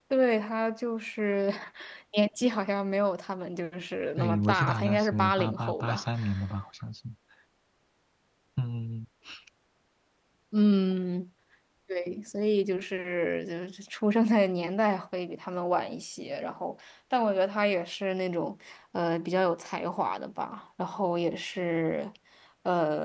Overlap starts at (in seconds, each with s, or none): 4.2 s